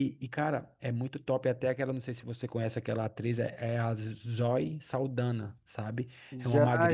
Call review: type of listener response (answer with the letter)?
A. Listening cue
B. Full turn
B